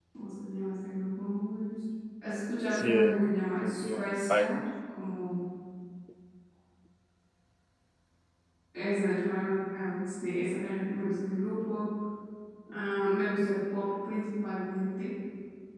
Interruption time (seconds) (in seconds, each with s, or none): 2.7 s